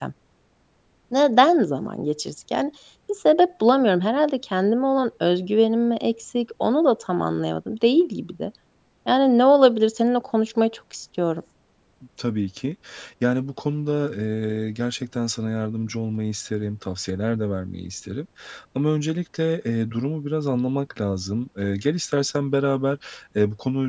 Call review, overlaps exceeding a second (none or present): none